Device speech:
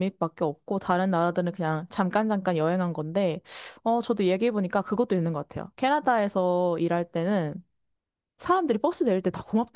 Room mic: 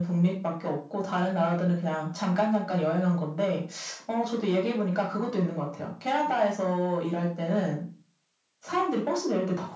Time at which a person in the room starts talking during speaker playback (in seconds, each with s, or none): none